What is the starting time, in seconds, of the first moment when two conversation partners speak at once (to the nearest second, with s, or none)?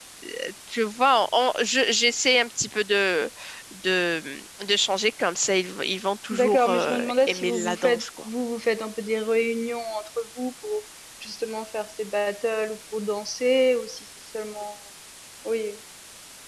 6 s